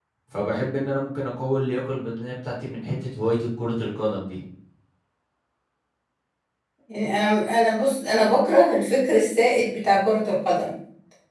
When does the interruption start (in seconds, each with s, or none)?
none